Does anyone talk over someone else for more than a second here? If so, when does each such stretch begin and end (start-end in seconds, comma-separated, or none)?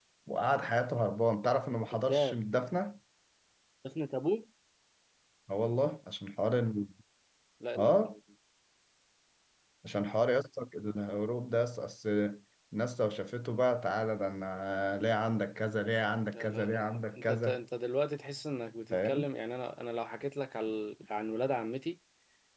16.3-17.6